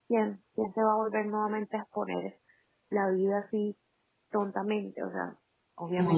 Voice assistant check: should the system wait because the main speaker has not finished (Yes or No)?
No